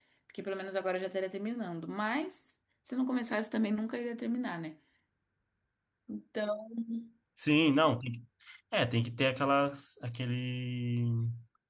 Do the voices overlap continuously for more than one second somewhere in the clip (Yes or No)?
No